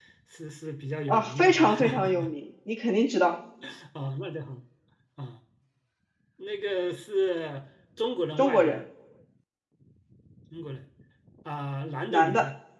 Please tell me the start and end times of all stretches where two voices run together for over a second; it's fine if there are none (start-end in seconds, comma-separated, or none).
1.1-2.3